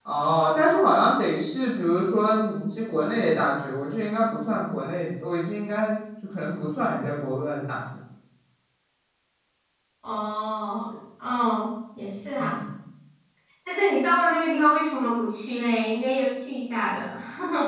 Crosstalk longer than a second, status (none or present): none